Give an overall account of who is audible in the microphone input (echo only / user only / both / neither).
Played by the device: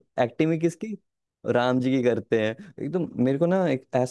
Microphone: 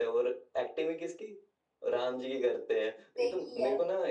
both